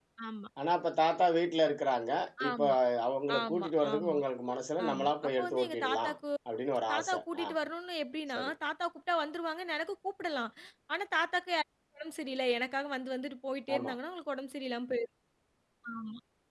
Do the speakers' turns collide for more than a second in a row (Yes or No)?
Yes